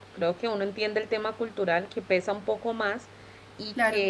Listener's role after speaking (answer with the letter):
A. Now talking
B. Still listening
B